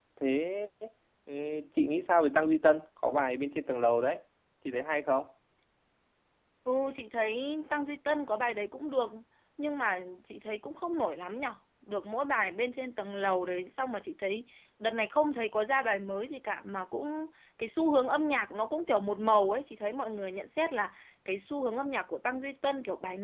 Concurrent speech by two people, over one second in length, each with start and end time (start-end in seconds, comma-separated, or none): none